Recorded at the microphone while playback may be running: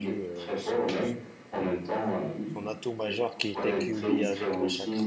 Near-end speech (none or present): present